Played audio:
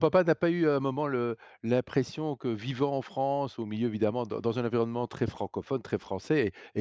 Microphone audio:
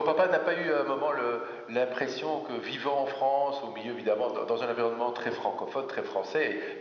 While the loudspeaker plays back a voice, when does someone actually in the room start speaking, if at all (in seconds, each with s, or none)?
none